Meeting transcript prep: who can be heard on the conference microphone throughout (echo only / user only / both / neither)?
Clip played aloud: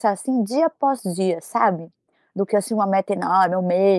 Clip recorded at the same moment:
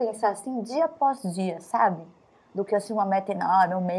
echo only